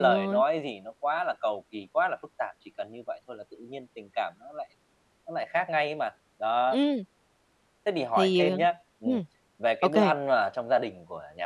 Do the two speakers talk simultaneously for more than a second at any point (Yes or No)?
No